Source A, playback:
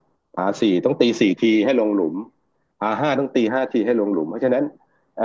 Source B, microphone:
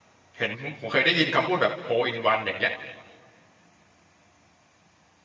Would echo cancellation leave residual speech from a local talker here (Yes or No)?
Yes